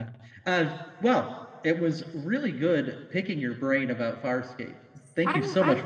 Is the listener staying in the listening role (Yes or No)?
No